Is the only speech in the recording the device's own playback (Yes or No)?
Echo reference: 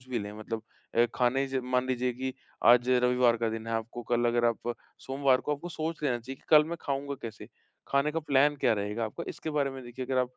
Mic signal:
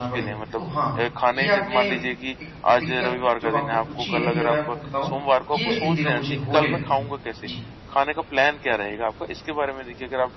No